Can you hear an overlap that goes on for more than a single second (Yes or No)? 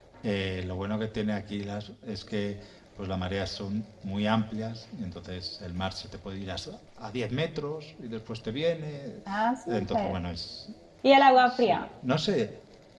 No